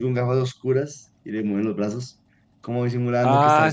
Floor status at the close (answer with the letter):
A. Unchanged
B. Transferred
B